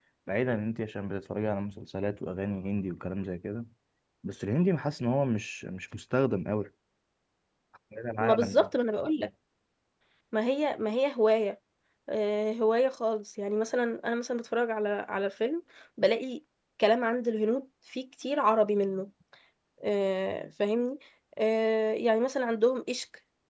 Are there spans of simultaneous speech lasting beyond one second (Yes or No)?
No